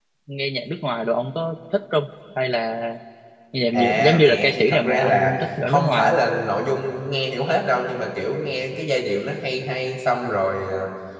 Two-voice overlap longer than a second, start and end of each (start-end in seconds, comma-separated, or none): 3.7-6.2